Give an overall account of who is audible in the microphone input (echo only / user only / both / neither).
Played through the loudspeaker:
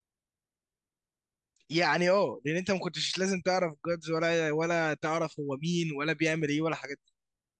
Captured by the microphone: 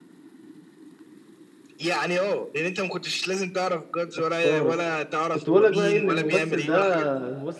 both